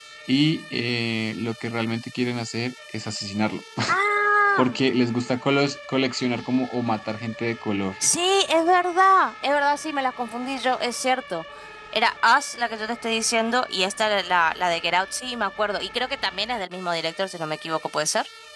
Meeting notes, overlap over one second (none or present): none